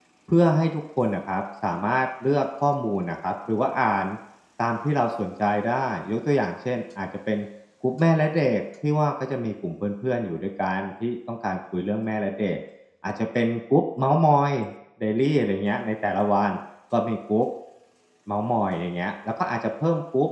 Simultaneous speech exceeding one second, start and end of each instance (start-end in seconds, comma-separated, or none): none